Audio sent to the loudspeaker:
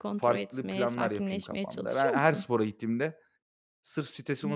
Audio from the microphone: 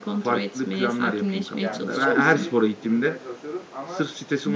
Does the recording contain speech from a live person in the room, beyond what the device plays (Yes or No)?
Yes